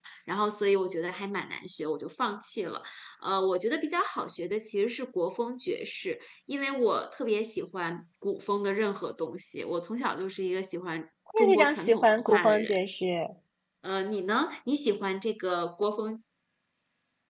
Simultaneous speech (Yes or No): Yes